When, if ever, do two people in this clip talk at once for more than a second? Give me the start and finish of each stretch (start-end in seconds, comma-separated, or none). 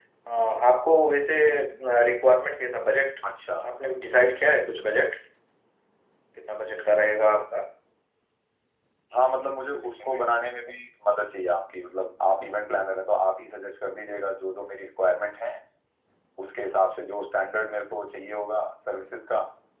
none